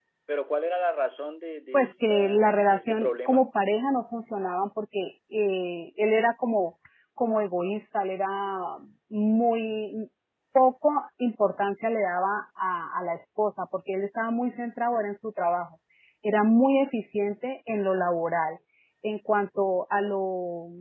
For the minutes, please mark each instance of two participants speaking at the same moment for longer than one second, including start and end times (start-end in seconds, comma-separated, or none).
1.7-3.5